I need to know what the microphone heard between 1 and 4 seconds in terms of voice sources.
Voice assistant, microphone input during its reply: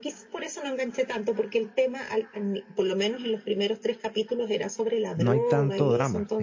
echo only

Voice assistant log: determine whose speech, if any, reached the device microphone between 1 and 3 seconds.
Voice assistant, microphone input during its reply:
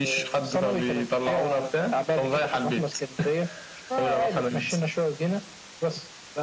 echo only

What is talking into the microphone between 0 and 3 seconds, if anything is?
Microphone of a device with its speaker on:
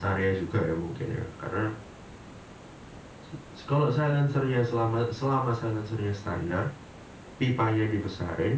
echo only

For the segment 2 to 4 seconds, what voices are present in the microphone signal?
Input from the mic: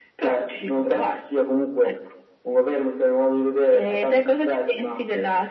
echo only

